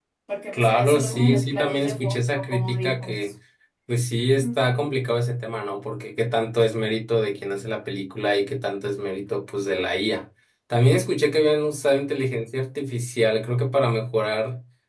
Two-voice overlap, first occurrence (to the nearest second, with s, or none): 1 s